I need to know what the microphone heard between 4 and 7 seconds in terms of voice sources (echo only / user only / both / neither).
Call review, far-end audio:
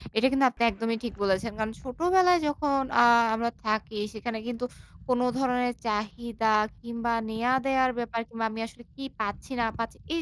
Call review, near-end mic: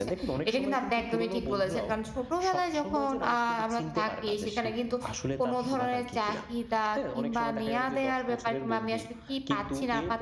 both